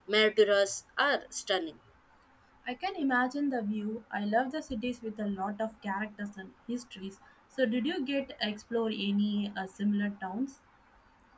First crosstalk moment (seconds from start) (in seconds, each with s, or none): none